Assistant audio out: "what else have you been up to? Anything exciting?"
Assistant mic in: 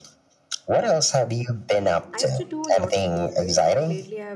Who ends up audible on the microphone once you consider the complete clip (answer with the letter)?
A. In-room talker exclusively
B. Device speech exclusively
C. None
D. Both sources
D